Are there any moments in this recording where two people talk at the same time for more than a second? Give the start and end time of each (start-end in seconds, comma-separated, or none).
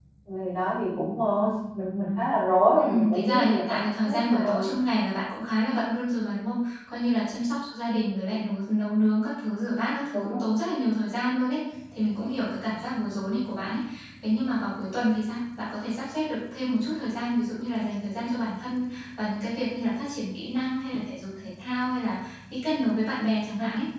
2.8-4.7